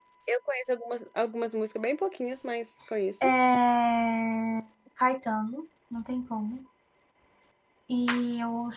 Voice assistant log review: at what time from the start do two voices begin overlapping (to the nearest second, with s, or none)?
none